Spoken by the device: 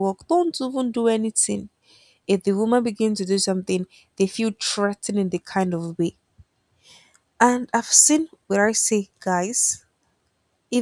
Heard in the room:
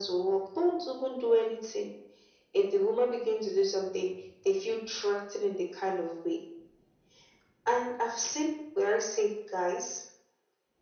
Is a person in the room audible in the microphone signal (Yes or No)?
No